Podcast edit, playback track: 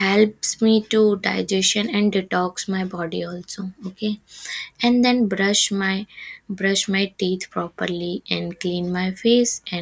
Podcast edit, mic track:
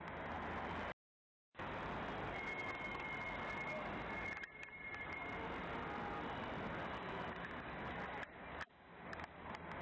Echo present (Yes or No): No